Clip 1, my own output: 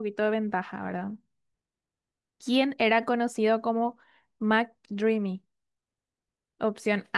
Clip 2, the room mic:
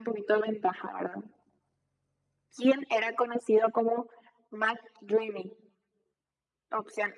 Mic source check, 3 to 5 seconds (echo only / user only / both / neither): echo only